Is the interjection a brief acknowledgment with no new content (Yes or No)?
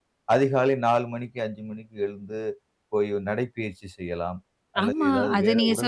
No